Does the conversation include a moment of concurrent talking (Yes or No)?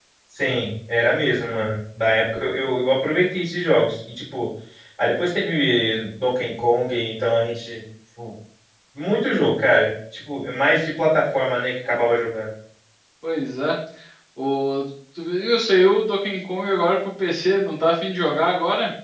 No